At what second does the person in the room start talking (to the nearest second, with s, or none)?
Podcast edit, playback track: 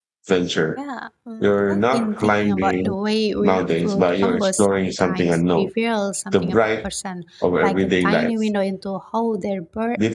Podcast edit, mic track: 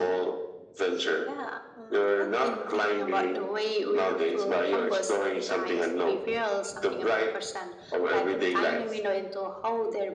none